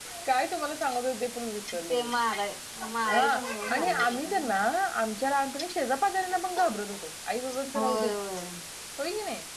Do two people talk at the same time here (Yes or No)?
Yes